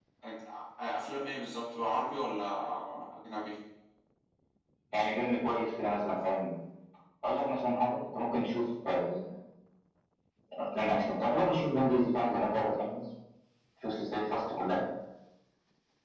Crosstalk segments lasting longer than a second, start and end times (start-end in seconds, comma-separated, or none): none